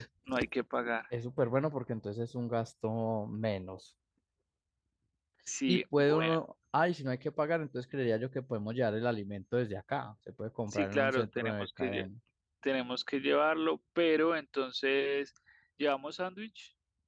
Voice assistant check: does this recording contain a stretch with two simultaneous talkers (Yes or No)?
Yes